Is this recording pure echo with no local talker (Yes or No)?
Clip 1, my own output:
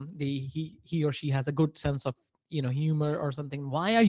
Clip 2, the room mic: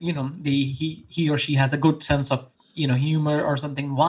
Yes